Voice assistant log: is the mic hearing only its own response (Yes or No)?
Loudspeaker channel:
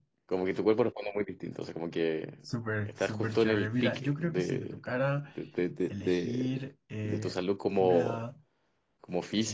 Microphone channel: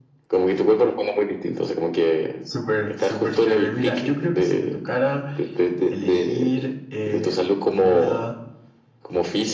Yes